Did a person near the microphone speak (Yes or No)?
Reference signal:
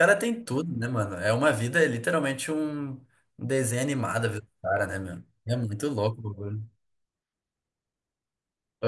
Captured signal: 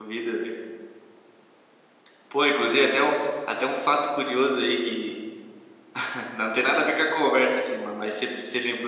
Yes